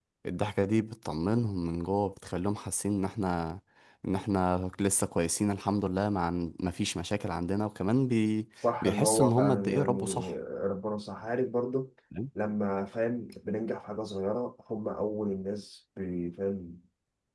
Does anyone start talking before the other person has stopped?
Yes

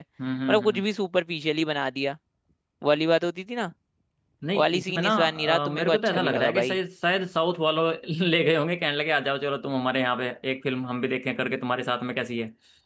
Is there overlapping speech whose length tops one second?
Yes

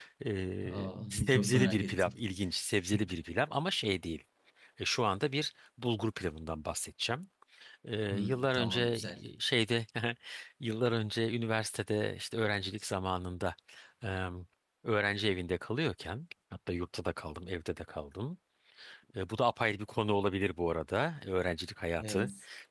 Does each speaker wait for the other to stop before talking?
No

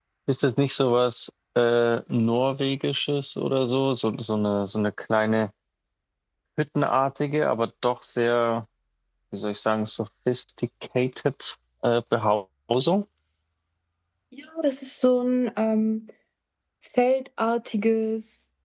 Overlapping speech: No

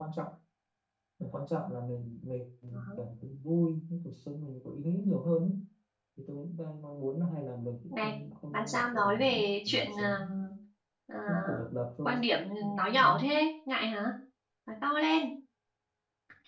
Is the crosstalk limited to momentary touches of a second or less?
No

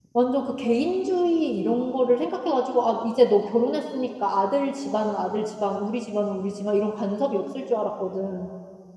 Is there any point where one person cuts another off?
No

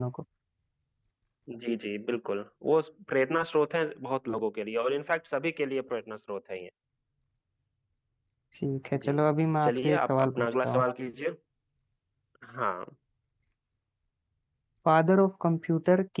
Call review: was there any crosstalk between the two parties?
Yes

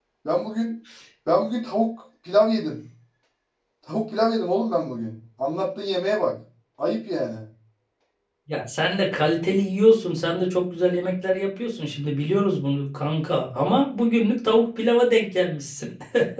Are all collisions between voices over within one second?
Yes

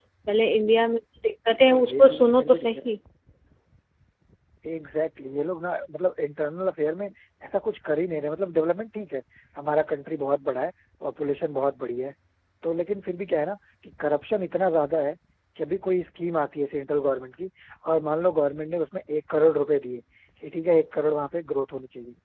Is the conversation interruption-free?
No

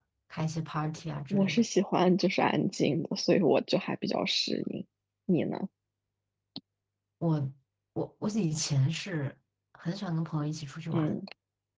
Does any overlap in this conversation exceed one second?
No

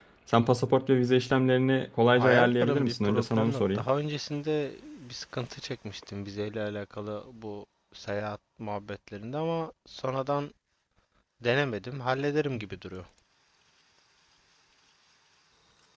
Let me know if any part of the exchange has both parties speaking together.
Yes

